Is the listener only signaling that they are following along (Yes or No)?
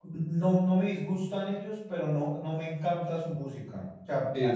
No